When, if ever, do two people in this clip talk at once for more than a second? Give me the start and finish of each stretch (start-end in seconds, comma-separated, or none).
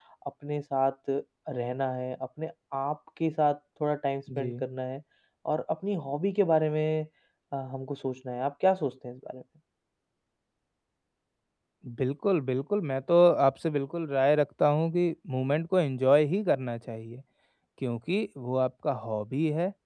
none